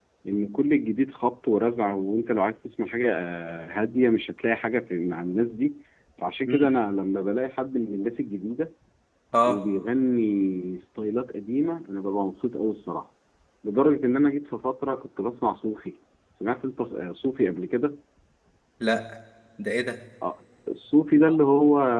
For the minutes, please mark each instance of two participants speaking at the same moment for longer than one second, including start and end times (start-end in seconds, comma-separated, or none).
none